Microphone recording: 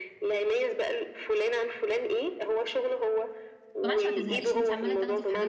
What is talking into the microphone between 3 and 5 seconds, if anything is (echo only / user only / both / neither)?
both